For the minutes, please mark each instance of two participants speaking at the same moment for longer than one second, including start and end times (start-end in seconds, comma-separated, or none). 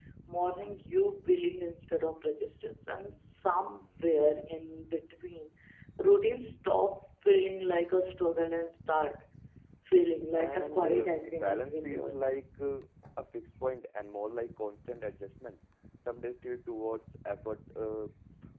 10.3-12.4